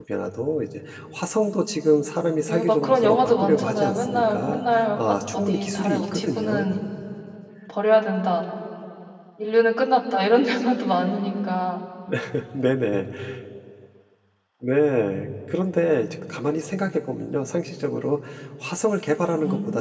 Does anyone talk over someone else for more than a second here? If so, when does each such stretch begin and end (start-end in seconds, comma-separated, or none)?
2.5-6.7